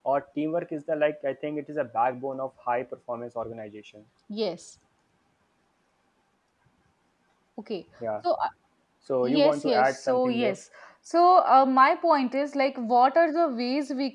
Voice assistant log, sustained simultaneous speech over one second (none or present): present